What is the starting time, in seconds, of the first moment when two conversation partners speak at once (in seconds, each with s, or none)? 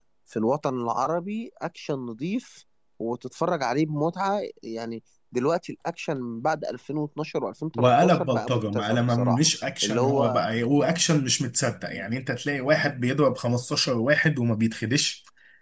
7.8 s